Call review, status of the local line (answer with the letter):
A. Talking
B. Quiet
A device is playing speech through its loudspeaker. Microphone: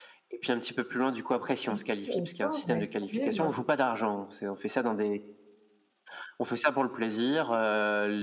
A